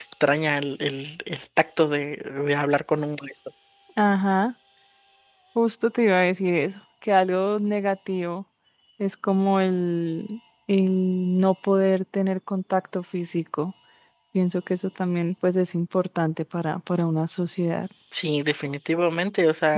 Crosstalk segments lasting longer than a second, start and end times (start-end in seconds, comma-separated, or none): none